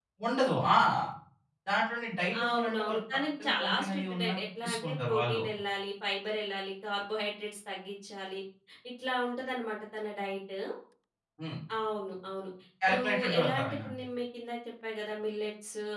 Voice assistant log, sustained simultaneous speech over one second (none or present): present